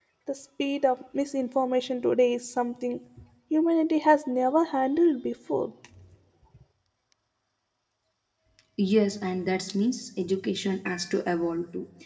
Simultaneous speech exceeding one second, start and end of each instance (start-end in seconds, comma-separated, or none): none